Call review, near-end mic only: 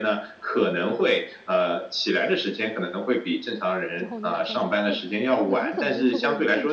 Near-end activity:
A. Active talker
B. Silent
A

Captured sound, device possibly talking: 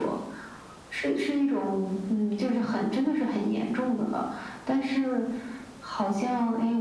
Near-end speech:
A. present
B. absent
B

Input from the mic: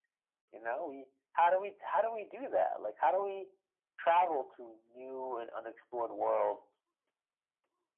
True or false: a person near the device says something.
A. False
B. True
A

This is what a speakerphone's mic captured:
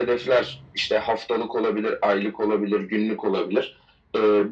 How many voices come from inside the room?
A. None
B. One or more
A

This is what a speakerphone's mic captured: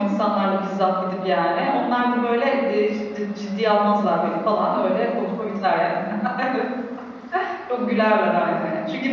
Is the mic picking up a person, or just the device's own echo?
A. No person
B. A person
A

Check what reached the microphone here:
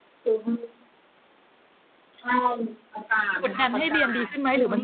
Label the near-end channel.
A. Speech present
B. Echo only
A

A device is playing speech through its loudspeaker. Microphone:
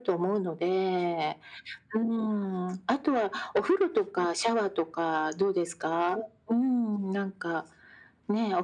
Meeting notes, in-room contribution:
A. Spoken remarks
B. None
B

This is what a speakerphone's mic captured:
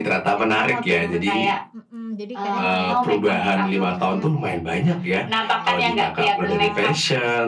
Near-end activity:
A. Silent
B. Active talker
B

